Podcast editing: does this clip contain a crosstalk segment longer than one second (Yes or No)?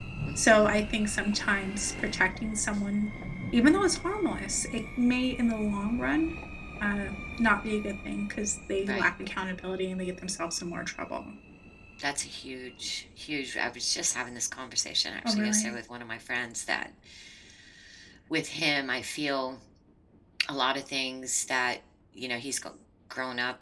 No